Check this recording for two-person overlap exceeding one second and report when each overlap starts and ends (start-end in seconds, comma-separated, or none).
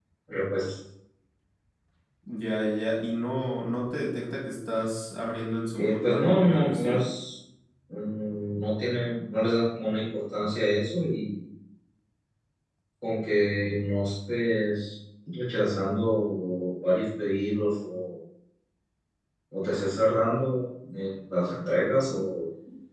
5.8-7.0